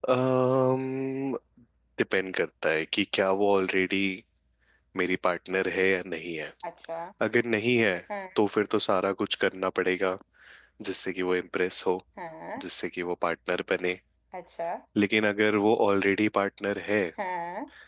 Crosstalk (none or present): none